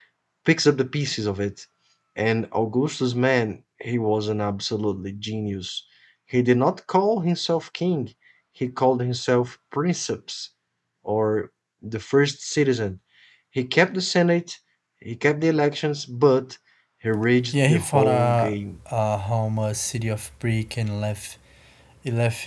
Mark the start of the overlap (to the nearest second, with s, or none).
18 s